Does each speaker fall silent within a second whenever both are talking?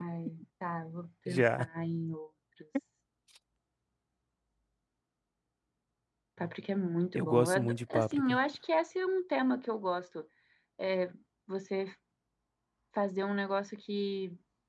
No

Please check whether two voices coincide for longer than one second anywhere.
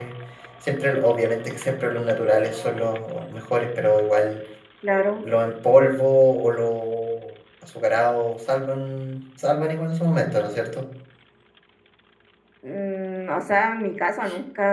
No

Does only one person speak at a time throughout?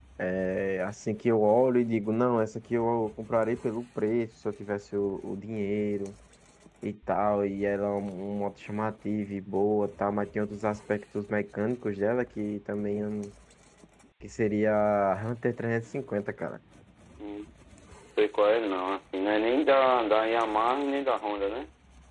Yes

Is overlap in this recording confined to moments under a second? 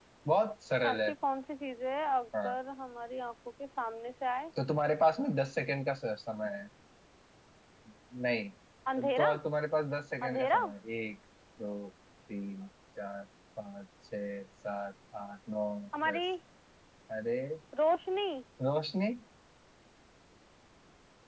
Yes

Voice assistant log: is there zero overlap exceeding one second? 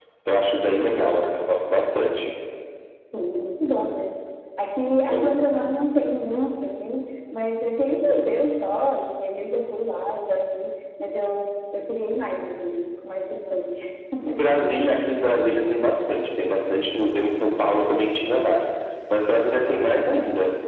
Yes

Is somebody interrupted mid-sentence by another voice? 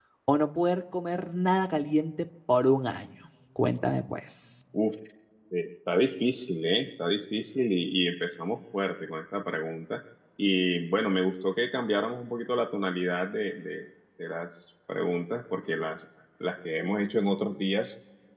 No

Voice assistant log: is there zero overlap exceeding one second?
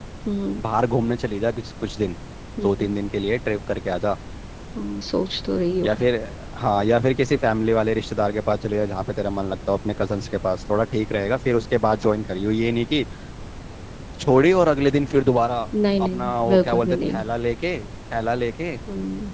No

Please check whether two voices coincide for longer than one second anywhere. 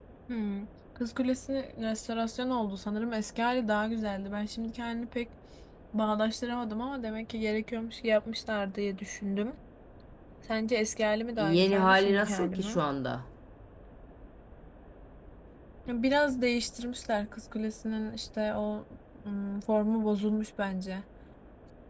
Yes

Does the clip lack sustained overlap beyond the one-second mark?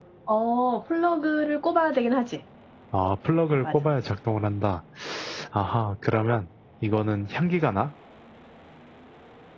Yes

